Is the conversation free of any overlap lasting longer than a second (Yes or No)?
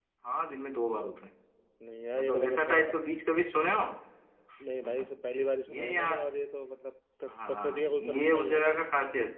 No